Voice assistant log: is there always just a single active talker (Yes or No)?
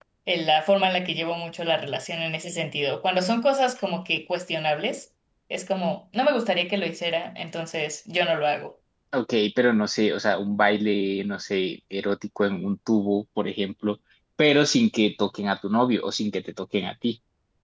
Yes